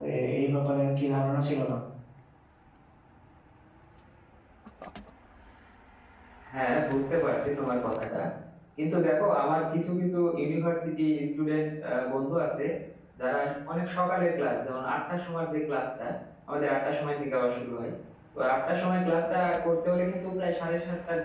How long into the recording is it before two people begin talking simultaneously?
none

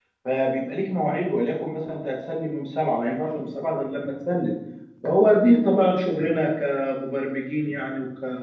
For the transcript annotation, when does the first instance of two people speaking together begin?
none

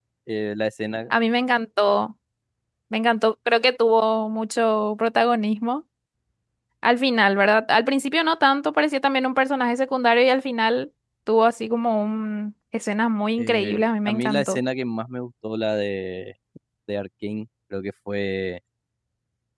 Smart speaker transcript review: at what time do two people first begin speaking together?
13.4 s

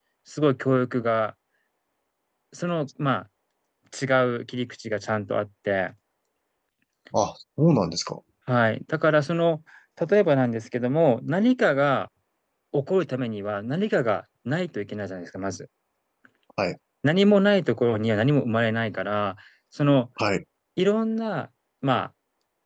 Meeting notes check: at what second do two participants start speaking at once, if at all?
none

